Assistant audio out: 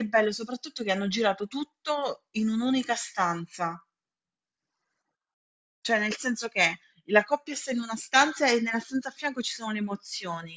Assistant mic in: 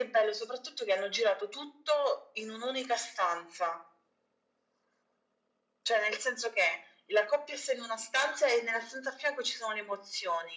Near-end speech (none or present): none